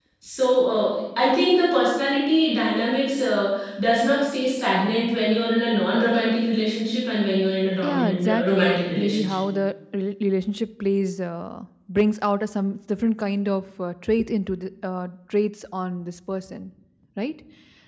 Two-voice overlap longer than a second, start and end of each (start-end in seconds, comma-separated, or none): 7.8-9.4